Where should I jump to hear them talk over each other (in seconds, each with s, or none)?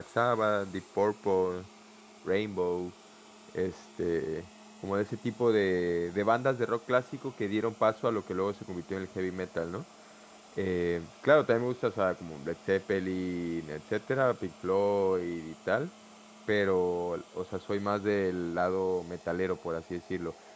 none